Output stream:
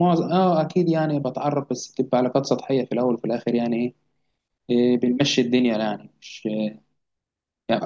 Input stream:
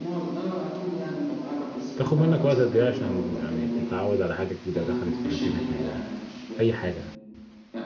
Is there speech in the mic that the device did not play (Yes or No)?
Yes